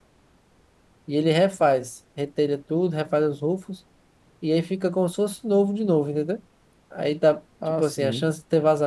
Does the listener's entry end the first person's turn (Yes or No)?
No